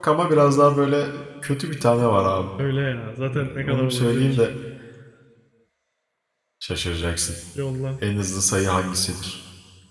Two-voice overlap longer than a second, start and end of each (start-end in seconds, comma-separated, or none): 3.2-4.4